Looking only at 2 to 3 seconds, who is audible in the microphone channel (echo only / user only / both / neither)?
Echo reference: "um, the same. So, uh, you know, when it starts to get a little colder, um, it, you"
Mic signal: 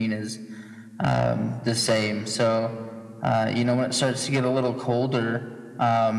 echo only